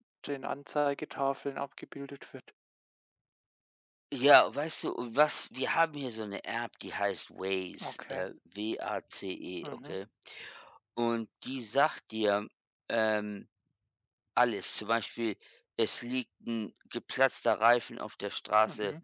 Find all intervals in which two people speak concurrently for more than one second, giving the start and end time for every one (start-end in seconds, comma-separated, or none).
none